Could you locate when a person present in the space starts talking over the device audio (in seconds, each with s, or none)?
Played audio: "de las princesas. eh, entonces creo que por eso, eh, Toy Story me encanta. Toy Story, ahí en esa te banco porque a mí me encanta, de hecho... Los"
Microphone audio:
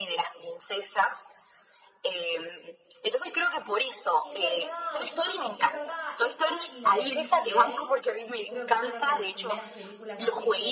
4.2 s